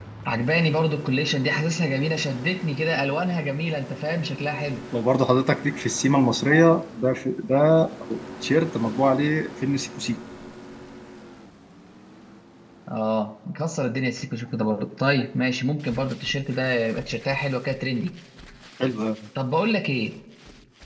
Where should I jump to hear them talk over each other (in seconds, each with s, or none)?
none